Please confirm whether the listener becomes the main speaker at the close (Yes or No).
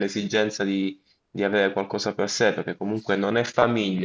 No